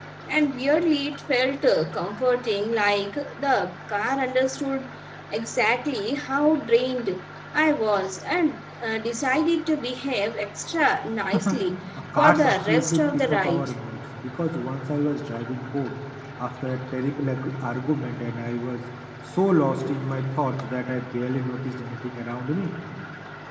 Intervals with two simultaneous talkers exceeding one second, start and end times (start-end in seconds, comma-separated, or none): 12.2-13.7